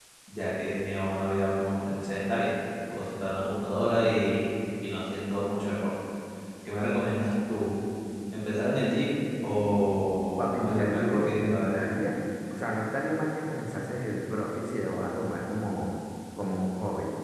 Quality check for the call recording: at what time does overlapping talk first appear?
10.4 s

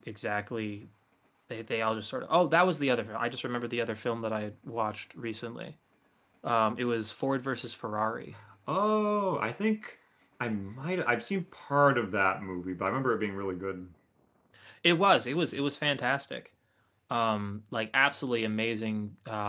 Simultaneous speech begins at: none

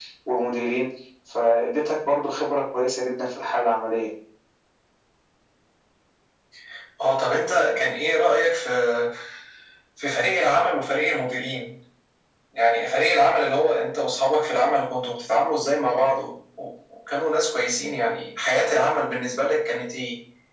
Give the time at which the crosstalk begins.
none

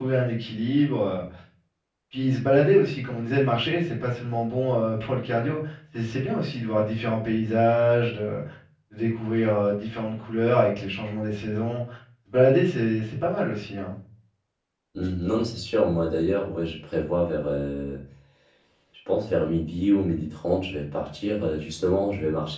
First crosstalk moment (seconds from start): none

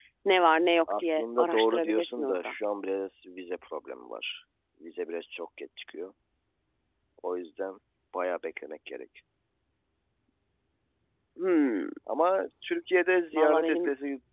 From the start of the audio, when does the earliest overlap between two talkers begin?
0.9 s

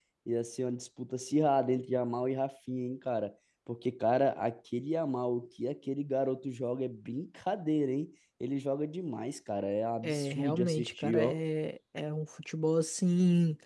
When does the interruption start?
10.0 s

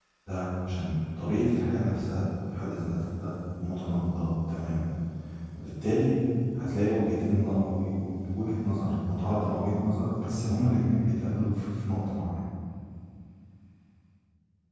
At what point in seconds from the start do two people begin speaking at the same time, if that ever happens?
none

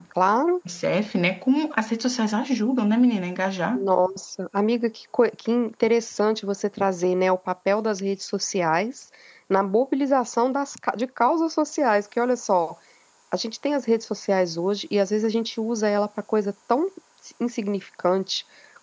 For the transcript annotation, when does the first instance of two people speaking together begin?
none

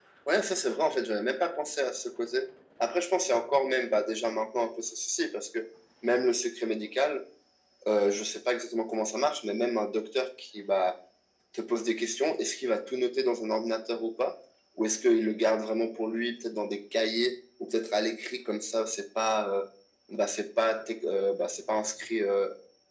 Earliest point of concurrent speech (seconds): none

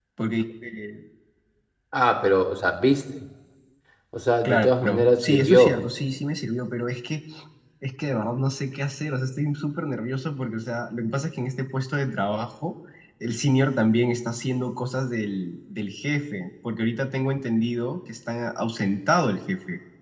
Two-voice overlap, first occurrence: 4.5 s

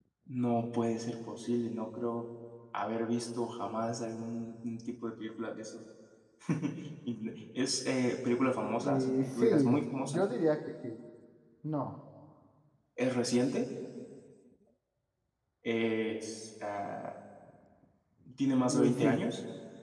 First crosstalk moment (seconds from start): 8.8 s

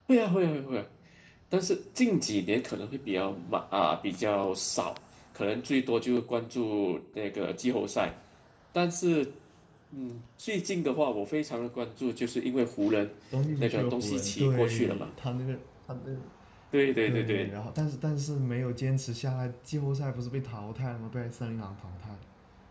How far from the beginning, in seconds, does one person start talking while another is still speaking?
13.6 s

